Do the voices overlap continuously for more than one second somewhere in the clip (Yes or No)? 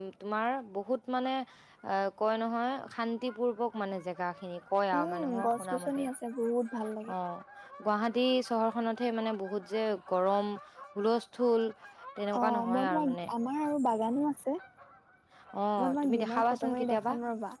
Yes